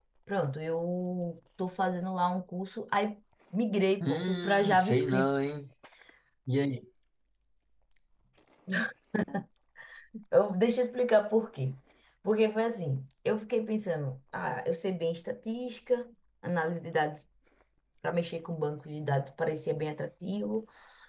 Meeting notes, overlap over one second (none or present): present